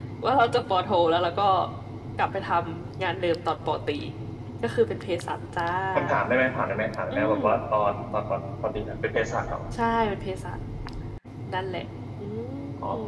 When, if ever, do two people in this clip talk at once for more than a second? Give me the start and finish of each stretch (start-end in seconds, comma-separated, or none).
none